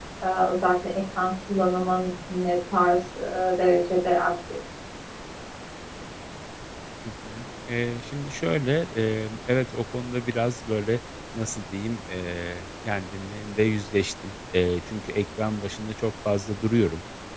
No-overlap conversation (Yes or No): Yes